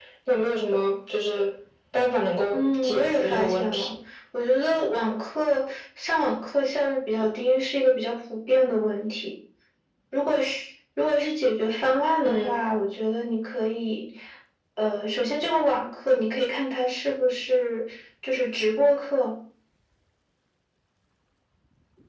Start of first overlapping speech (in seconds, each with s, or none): 2.5 s